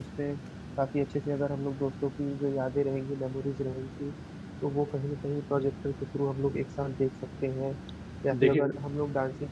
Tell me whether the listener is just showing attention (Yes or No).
Yes